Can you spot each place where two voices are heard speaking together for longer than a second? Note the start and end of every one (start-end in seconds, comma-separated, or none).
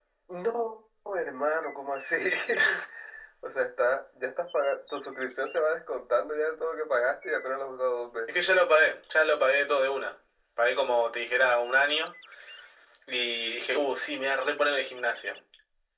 none